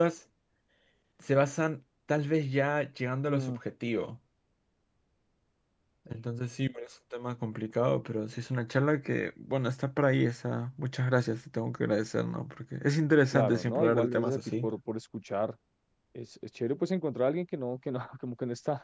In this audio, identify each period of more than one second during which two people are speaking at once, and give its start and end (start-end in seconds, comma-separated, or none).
13.3-14.7